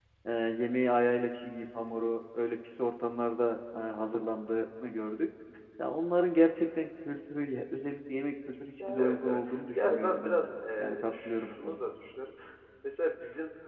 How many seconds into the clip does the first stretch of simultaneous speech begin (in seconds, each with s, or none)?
8.8 s